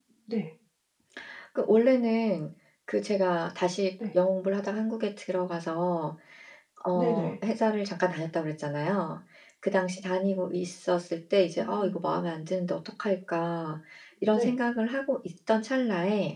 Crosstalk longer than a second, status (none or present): none